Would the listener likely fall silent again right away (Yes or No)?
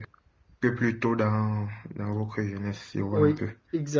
No